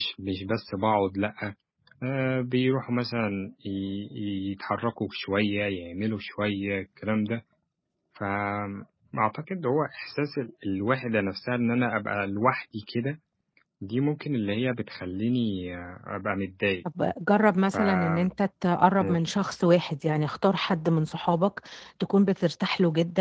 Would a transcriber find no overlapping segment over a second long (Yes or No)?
Yes